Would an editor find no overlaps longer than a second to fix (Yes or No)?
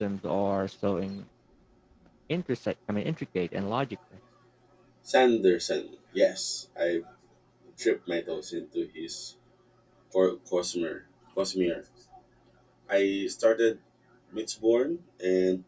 Yes